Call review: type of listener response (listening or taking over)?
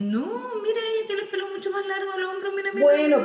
taking over